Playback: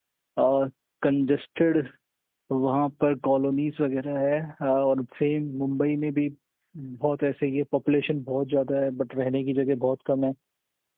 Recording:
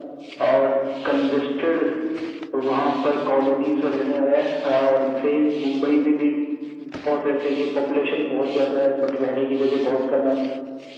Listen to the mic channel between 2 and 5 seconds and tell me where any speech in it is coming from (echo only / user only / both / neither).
echo only